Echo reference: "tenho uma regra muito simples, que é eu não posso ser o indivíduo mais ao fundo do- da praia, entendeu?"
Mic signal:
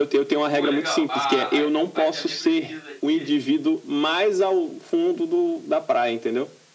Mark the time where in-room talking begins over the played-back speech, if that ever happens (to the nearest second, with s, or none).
1 s